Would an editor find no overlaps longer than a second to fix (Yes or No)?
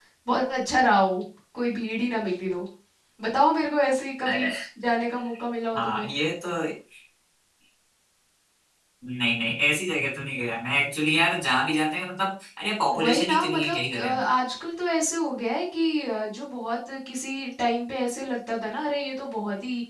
No